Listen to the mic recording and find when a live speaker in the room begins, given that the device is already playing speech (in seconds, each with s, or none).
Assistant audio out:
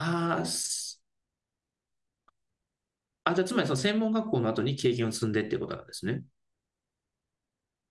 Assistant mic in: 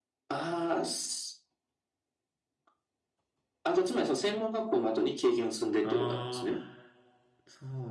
5.8 s